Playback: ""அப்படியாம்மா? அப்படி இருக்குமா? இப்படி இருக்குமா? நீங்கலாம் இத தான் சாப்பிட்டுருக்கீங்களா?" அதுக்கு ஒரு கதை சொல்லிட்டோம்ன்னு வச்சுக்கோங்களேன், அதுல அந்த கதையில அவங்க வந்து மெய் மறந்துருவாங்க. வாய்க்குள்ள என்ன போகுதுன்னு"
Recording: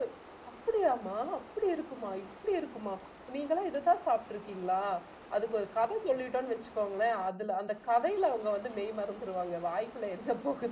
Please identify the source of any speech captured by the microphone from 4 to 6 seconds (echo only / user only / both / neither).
echo only